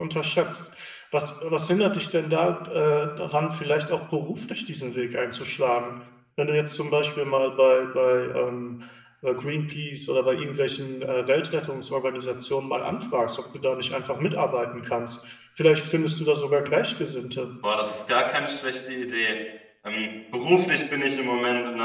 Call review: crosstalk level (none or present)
none